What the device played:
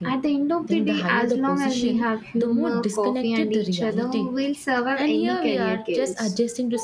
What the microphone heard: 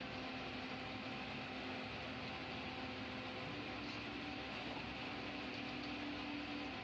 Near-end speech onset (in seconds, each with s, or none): none